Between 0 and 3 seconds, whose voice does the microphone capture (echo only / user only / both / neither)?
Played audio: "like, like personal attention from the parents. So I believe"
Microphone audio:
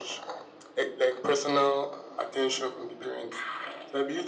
echo only